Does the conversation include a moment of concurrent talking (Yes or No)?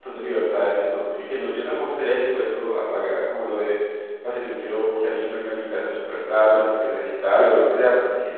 No